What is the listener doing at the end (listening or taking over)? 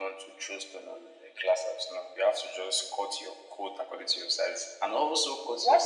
taking over